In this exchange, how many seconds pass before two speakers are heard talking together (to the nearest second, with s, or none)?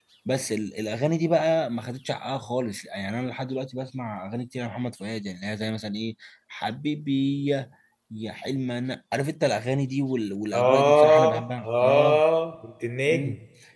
11 s